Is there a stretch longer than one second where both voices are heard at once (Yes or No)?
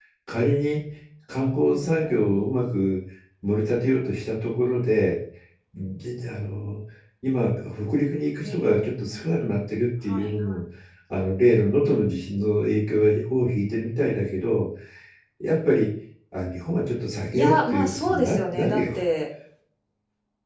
Yes